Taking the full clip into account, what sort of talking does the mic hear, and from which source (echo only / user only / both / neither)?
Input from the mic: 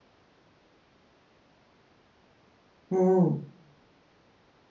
user only